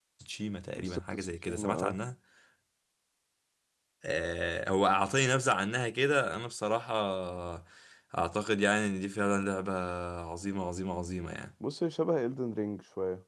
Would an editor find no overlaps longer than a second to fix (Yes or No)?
No